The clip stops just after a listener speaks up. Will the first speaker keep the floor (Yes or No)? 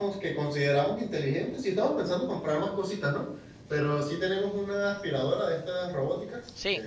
No